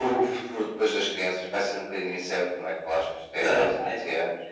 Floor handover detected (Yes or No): Yes